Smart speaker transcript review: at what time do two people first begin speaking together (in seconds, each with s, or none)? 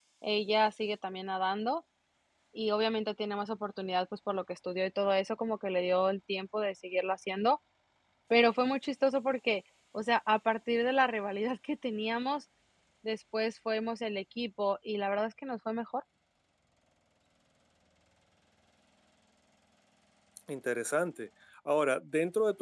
none